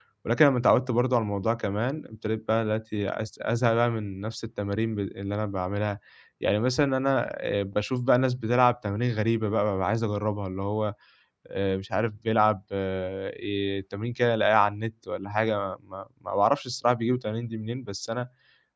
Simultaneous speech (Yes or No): No